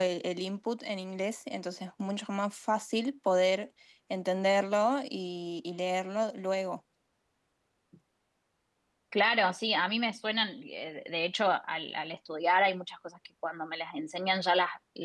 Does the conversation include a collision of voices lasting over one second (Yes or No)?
No